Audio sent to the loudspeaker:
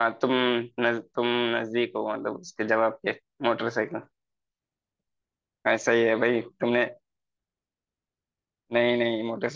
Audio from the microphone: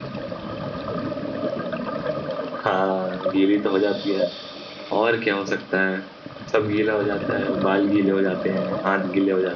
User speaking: Yes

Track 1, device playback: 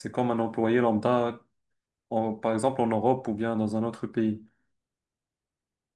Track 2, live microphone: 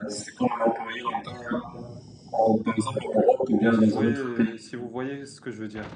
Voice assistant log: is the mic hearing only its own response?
No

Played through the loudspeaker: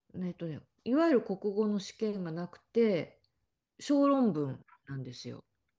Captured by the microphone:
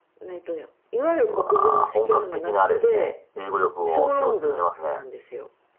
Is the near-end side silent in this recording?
No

